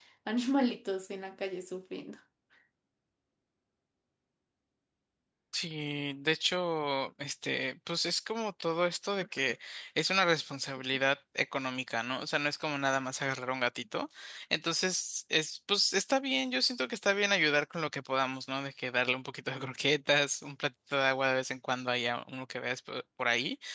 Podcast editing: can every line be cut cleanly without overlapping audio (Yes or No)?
Yes